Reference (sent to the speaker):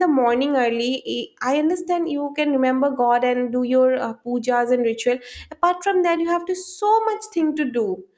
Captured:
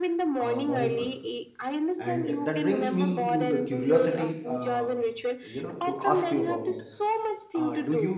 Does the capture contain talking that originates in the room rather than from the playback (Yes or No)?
Yes